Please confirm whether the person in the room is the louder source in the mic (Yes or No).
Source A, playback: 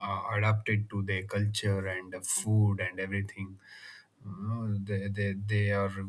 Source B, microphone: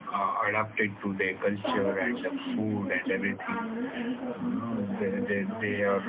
No